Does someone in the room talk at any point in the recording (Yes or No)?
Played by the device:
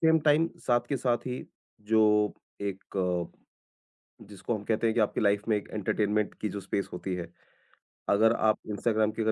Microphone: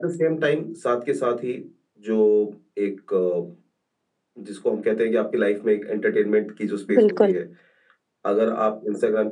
Yes